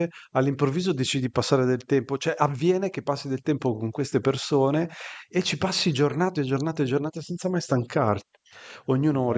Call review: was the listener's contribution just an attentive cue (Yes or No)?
Yes